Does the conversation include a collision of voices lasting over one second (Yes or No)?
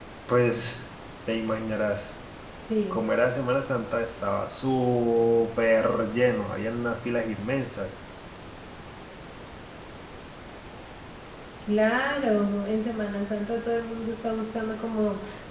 No